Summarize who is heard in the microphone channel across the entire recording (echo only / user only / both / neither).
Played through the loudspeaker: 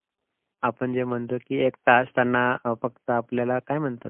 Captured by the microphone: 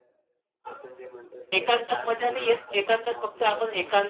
both